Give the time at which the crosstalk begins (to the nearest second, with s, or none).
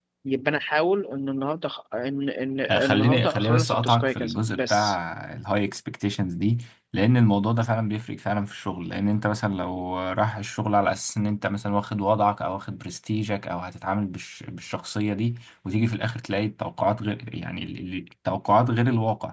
3 s